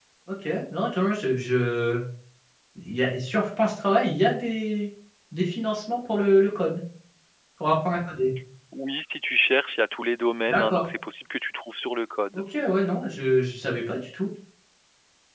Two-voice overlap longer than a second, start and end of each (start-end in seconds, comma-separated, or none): none